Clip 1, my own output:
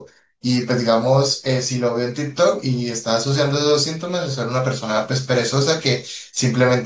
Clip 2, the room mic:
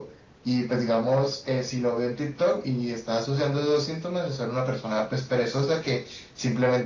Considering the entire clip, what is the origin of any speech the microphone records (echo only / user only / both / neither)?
echo only